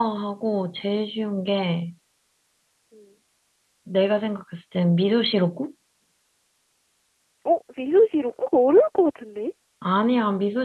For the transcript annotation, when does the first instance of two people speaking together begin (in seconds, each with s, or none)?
none